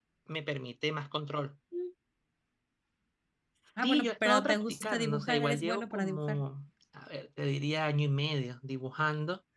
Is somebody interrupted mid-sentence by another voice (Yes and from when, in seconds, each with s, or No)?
Yes, from 3.8 s